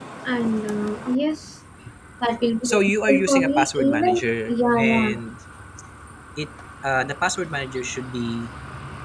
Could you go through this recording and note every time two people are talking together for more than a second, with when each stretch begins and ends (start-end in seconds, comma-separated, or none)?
2.6-5.1